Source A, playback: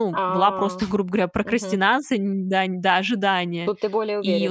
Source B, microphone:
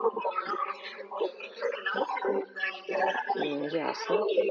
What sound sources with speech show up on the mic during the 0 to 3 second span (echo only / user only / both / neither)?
echo only